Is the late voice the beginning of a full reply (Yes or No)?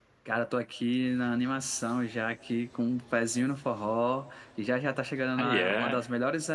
No